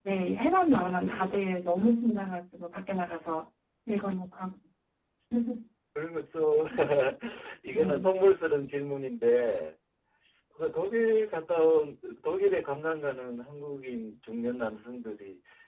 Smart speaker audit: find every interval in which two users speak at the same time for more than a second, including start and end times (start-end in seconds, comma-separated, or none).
0.6-2.0